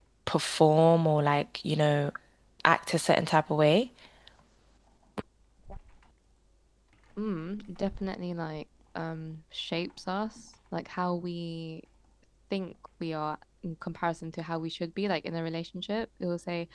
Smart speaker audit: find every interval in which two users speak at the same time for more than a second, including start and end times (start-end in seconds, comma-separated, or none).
none